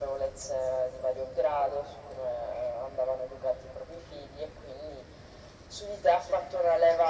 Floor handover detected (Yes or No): No